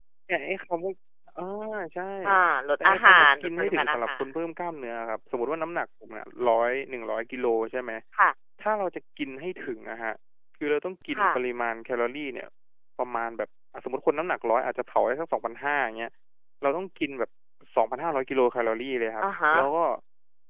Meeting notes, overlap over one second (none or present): present